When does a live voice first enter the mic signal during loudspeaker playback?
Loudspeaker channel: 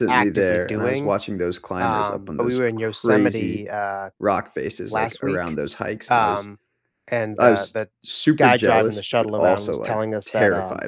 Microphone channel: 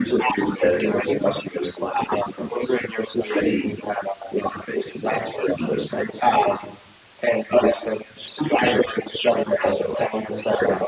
none

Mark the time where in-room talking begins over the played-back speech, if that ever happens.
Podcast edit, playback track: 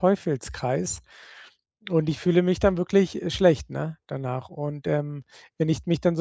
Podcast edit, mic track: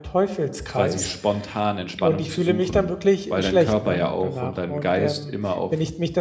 0.7 s

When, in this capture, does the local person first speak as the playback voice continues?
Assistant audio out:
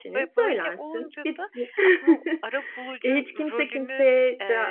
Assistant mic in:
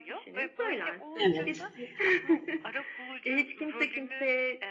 1.2 s

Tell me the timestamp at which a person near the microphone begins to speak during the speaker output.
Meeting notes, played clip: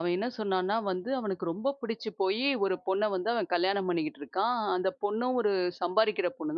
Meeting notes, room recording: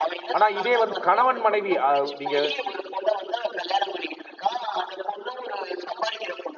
0.4 s

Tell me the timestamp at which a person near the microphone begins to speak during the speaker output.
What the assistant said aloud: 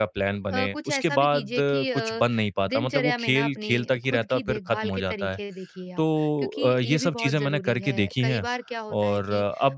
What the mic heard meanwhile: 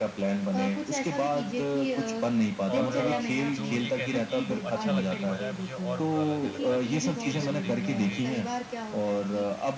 2.7 s

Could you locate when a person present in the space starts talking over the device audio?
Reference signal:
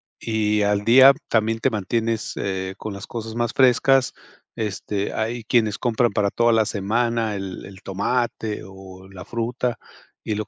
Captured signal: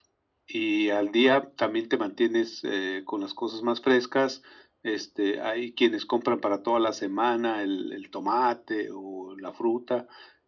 none

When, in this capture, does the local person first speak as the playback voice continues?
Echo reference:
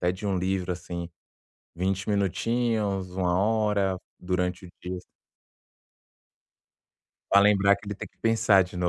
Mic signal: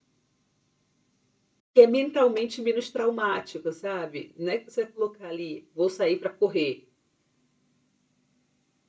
1.7 s

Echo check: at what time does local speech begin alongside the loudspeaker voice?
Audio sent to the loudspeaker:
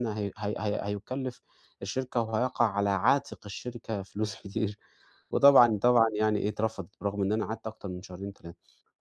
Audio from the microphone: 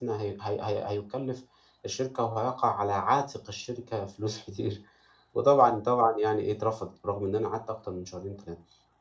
none

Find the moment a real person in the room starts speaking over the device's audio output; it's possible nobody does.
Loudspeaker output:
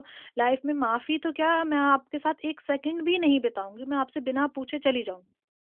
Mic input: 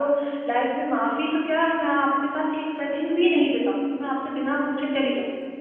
none

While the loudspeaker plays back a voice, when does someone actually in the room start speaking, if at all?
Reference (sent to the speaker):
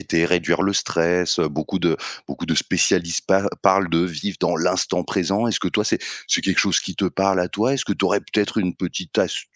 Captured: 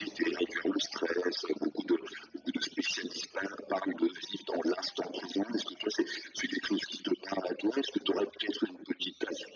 none

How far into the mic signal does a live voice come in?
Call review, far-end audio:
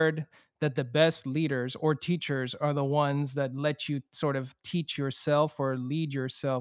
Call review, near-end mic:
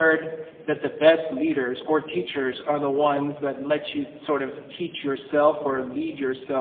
none

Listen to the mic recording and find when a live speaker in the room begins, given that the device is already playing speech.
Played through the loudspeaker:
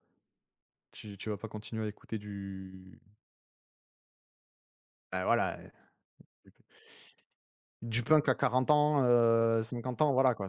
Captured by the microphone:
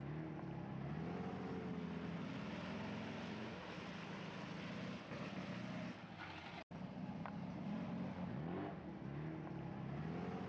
none

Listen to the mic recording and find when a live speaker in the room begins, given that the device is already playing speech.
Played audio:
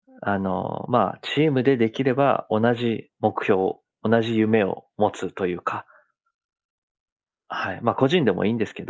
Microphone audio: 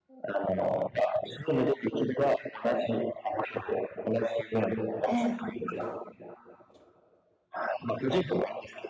5.0 s

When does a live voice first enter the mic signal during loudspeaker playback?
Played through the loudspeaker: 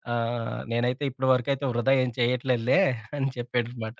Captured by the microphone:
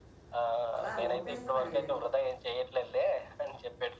0.8 s

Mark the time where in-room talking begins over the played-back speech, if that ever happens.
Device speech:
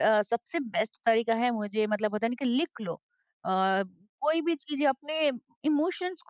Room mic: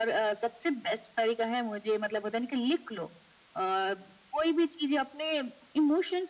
none

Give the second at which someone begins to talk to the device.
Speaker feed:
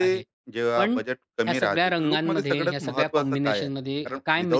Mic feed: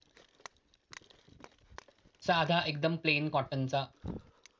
2.3 s

